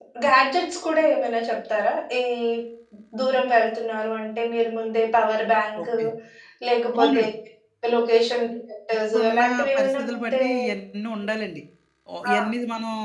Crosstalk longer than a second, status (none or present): present